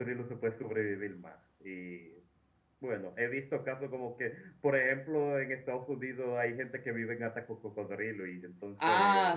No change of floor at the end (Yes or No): No